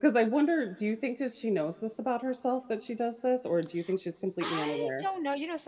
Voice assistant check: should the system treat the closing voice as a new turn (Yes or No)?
Yes